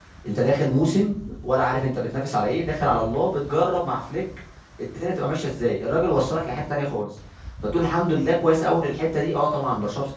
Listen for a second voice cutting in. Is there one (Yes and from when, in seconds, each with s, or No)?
No